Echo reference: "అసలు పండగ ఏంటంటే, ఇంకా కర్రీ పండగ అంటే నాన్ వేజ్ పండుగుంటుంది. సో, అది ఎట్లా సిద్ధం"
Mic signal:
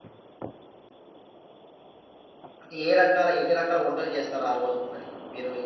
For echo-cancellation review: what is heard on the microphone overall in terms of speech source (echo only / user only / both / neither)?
user only